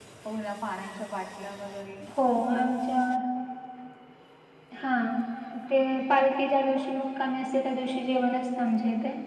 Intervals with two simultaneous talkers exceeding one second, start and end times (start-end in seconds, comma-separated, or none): none